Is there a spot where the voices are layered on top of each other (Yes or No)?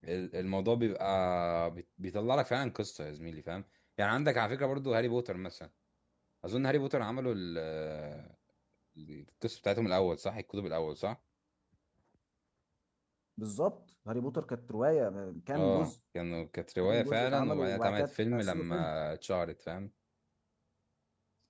Yes